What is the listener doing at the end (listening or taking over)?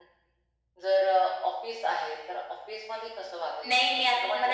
taking over